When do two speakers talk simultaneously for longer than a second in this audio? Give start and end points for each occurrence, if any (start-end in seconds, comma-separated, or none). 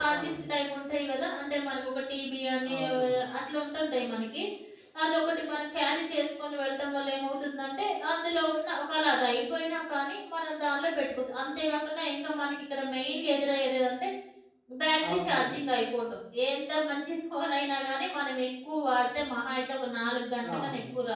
none